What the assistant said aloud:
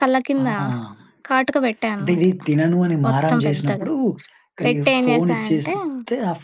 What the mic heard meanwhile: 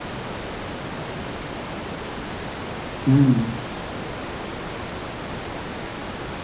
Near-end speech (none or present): present